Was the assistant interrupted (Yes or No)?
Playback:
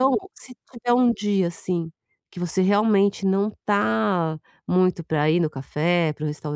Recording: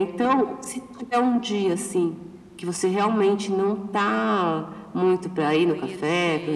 Yes